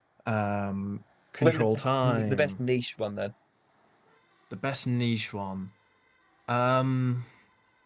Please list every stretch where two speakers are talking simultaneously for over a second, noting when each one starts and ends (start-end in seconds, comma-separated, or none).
1.4-2.6